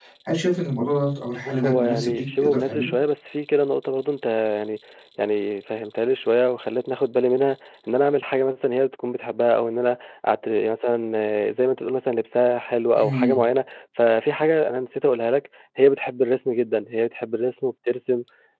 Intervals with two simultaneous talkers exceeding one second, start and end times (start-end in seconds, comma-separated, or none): 1.4-2.9